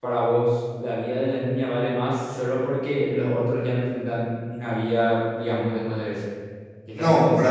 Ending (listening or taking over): taking over